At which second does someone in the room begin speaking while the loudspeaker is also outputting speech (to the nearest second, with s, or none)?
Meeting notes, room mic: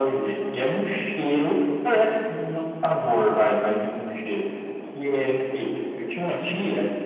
none